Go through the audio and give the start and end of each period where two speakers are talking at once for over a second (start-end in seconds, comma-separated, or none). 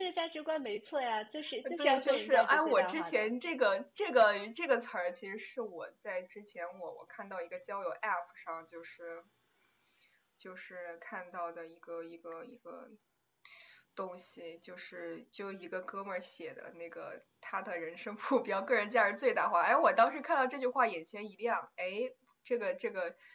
1.8-3.3